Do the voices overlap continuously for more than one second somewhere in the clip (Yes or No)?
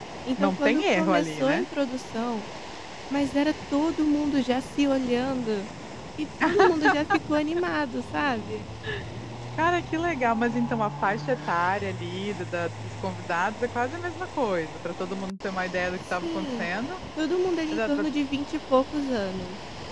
Yes